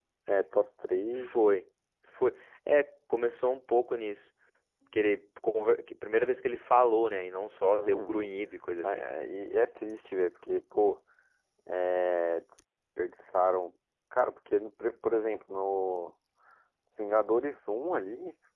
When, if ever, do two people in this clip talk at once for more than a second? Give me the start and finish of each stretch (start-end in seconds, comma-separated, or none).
none